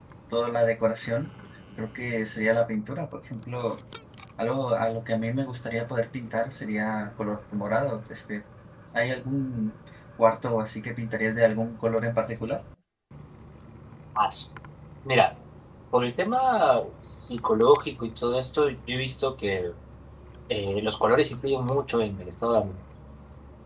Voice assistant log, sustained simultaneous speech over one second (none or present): none